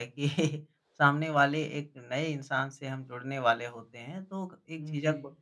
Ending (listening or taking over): listening